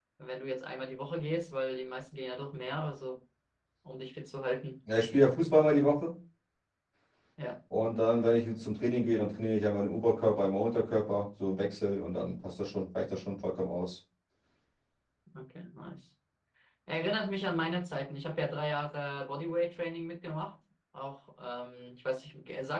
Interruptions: none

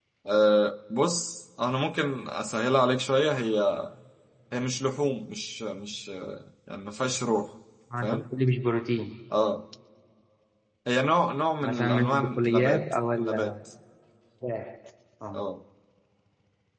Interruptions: present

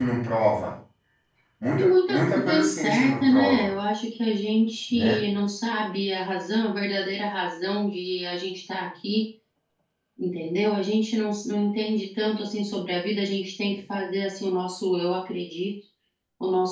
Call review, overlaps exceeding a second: present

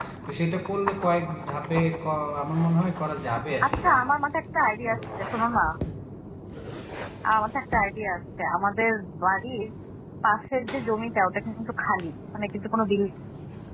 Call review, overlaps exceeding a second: none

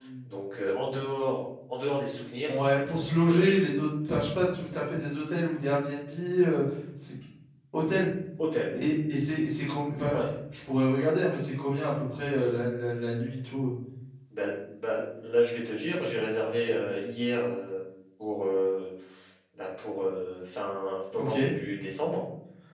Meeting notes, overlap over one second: none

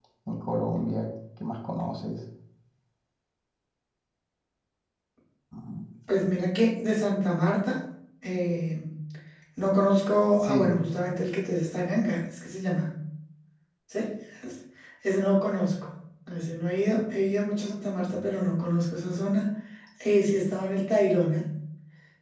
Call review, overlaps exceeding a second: none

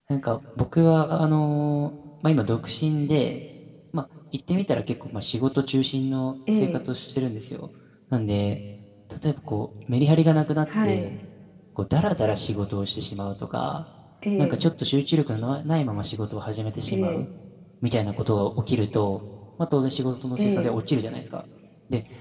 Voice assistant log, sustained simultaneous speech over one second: none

